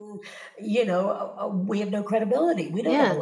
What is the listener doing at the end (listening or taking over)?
taking over